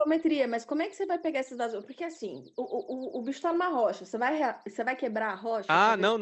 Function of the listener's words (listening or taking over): taking over